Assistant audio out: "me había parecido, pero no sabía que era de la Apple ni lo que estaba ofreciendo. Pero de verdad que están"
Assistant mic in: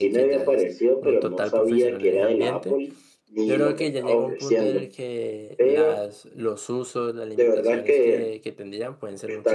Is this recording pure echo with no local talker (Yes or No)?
No